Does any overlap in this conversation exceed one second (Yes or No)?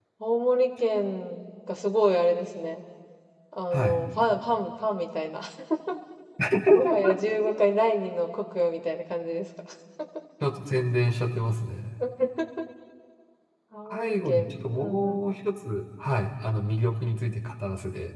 Yes